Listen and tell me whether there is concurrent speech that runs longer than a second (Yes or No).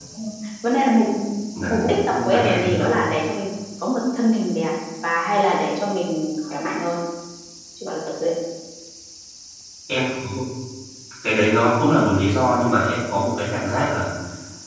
Yes